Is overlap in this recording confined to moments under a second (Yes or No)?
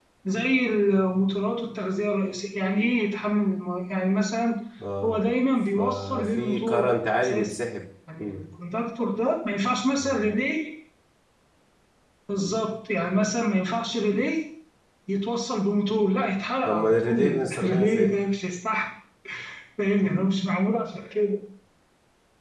No